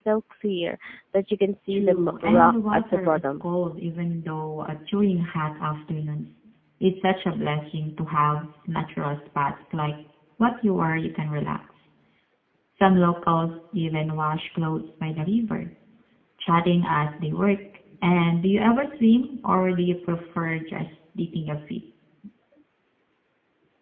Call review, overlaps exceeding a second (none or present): present